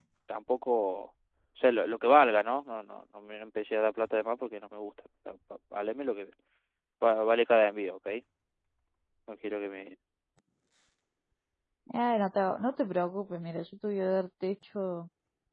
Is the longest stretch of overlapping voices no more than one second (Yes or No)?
Yes